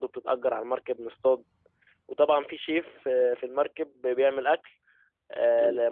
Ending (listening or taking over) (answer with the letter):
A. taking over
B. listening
B